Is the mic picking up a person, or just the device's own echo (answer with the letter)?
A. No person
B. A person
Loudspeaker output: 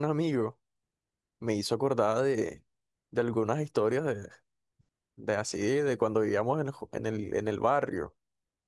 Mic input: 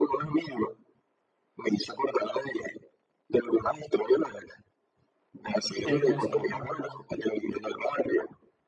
B